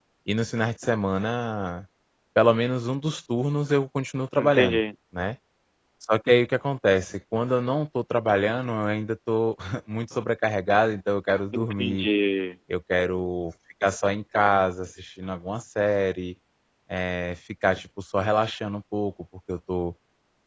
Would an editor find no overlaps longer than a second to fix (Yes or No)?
Yes